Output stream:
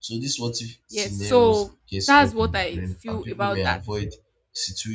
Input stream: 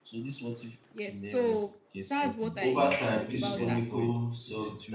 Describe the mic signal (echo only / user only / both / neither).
both